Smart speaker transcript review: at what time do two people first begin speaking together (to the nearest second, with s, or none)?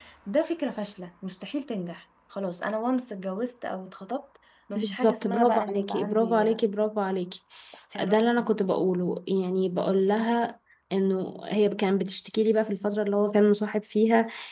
5 s